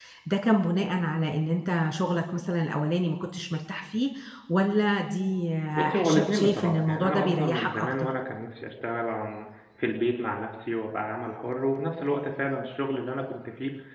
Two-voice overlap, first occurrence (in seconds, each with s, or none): 5.7 s